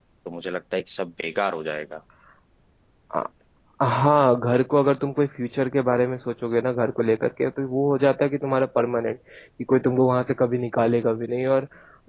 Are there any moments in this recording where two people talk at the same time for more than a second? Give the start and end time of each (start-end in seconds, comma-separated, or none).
none